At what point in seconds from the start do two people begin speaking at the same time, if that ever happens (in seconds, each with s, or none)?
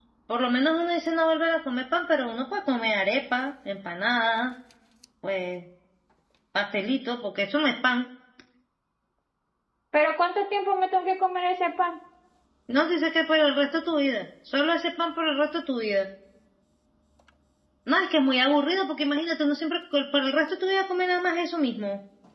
none